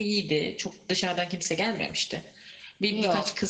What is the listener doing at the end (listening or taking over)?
listening